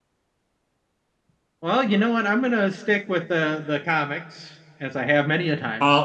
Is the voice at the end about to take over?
Yes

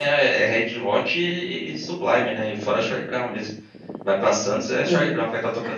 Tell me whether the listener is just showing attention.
No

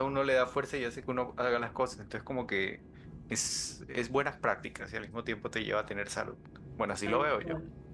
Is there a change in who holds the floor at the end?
Yes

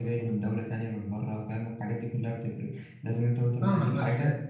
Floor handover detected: Yes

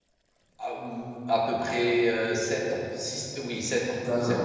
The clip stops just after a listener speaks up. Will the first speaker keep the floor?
No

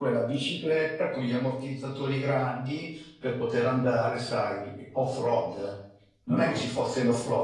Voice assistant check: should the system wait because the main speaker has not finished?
Yes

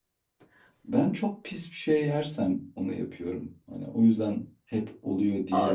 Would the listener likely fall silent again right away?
No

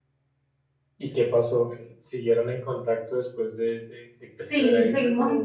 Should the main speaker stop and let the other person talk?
Yes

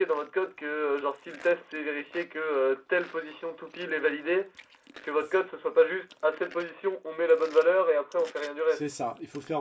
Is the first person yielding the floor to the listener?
Yes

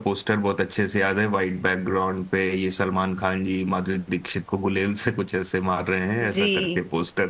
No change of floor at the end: No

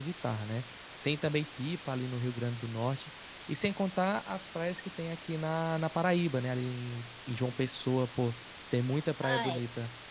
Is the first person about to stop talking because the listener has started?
Yes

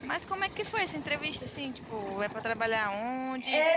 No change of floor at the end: No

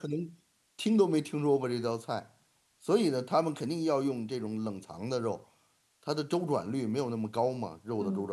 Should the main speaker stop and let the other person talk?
Yes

